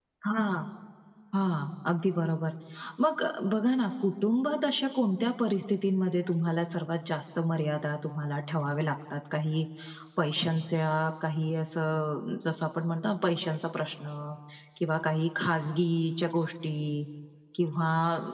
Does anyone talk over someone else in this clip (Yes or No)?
No